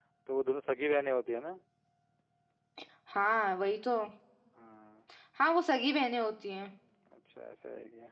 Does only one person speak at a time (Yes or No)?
Yes